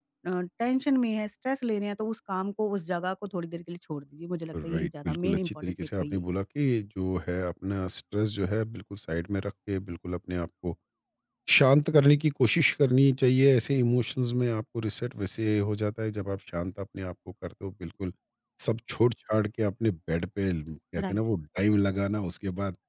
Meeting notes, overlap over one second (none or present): present